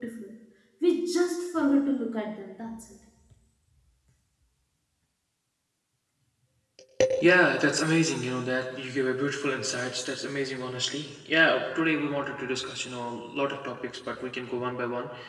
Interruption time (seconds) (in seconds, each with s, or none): none